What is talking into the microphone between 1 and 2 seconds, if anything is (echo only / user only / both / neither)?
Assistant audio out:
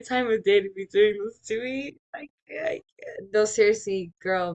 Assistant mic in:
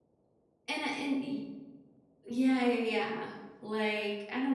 user only